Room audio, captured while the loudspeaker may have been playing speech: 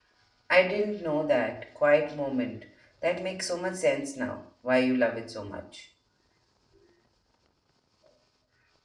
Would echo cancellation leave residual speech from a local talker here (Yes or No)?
Yes